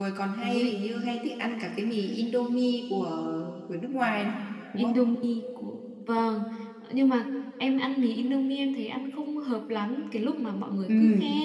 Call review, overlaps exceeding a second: none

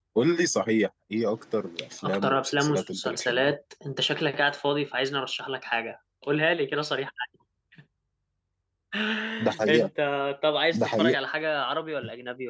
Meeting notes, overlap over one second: present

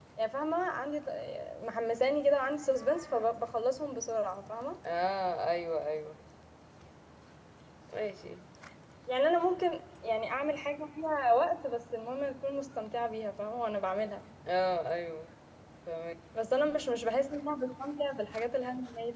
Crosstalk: none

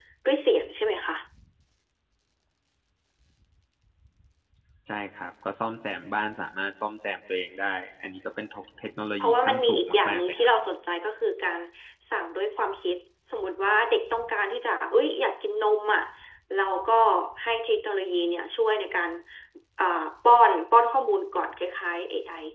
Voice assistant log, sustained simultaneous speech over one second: present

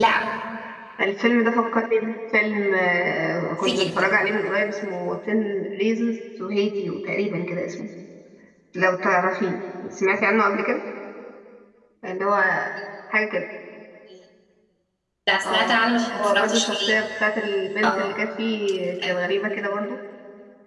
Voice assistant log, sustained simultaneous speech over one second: present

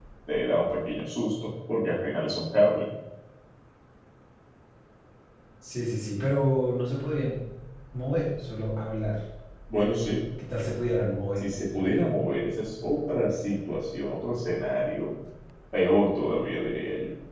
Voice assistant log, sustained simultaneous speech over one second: none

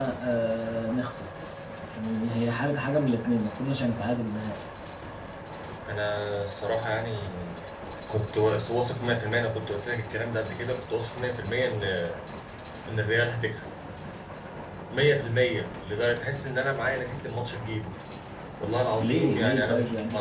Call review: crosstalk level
present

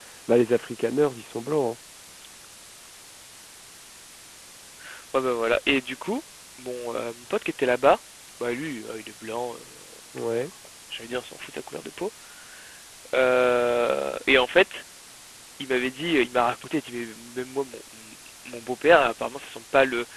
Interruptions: none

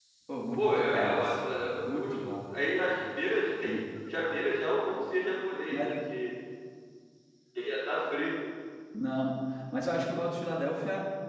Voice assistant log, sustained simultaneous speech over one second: present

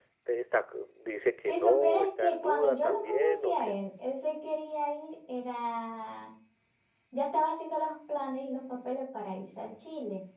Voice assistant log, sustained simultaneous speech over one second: present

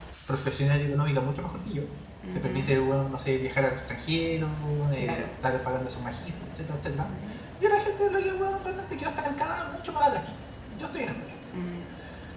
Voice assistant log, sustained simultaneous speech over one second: none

